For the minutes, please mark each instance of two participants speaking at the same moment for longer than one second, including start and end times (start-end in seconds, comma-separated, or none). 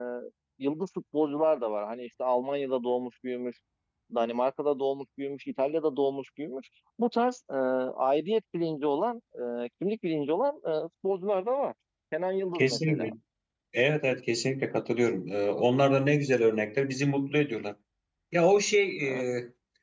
none